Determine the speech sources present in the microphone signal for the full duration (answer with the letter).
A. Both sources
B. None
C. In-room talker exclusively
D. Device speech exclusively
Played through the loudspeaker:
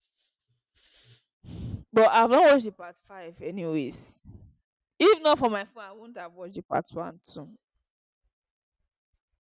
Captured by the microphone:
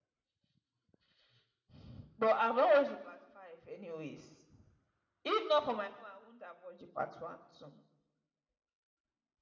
D